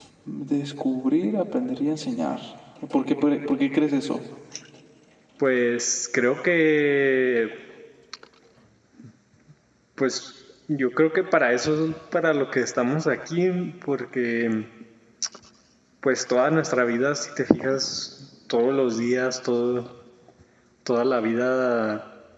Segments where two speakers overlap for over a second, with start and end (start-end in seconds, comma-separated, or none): none